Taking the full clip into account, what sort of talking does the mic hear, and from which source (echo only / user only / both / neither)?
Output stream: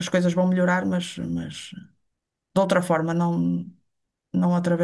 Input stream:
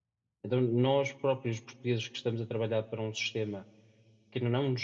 user only